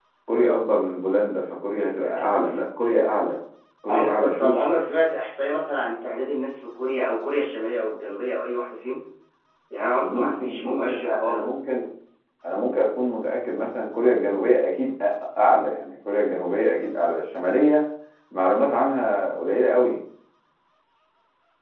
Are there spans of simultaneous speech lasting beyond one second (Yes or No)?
Yes